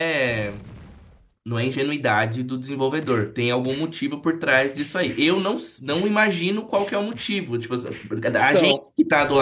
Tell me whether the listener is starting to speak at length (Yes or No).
No